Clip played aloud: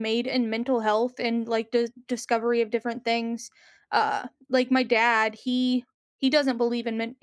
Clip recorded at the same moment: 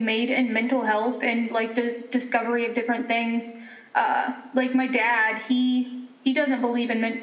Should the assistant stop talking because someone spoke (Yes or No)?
No